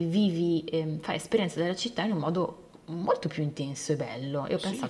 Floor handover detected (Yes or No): Yes